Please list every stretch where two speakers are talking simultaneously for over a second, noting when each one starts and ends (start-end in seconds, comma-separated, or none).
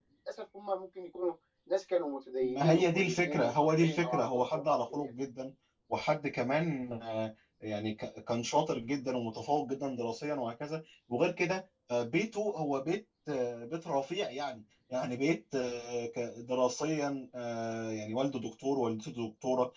2.4-5.1